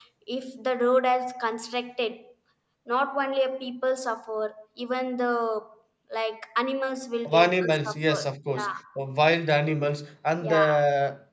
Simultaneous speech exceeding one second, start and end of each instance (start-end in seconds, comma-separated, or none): 7.2-8.7